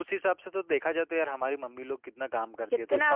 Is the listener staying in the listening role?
Yes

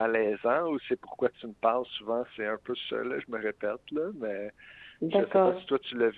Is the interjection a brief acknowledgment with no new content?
Yes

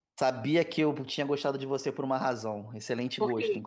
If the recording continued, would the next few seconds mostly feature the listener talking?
No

